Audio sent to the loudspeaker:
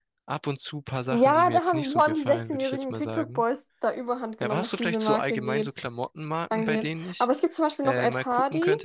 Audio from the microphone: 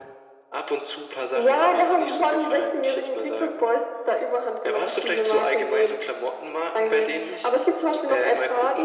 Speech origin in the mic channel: echo only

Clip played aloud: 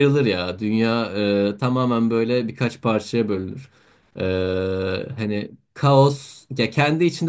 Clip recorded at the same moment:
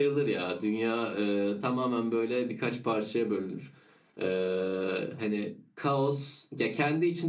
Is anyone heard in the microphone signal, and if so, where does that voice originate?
echo only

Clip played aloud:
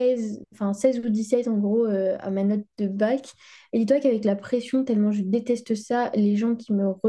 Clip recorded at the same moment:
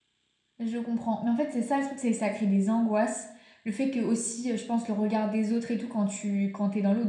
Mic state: user only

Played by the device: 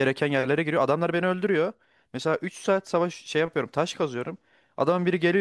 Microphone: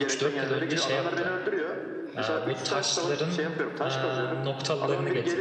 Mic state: both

